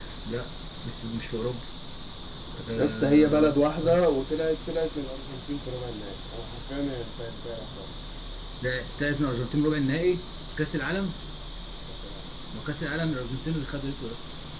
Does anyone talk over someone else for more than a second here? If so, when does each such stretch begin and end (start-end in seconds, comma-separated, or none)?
2.8-4.0